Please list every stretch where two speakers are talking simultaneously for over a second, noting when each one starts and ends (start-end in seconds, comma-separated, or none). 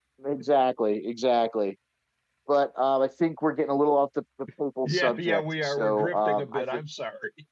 4.8-6.8